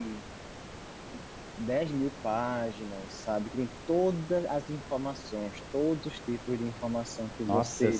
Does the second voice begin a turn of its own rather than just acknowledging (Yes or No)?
Yes